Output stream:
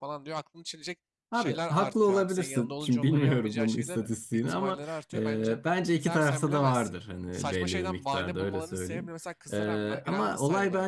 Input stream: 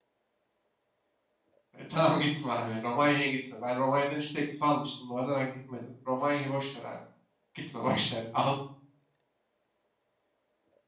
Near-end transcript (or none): E, tamam gitme abi. Romanya'ya gitme. Ben Romanya'dan hiç teklif almıştım. Bu arada ben gitmedim. Romanya'yı boş ver abi. Gitme boş ver. Al,